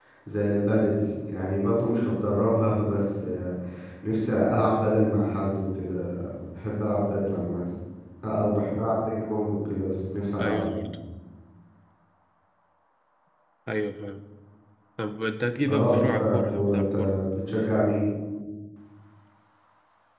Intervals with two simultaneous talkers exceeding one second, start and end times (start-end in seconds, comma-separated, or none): 15.7-16.9